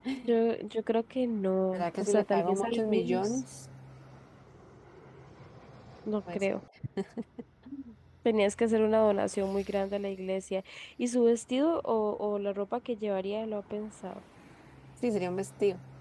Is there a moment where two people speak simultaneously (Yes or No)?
Yes